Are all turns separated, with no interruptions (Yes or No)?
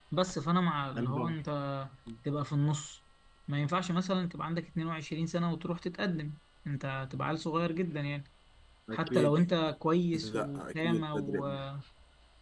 No